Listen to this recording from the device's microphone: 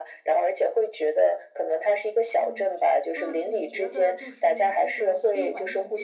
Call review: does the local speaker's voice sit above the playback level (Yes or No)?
No